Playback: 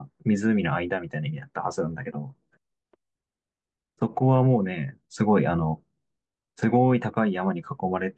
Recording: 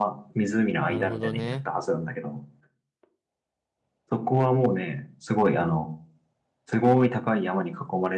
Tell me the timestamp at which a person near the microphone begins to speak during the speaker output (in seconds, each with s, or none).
0.9 s